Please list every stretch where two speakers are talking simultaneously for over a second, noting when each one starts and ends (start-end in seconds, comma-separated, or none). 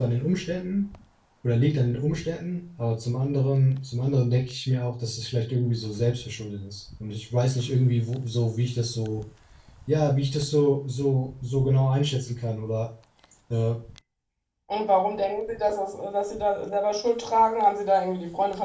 none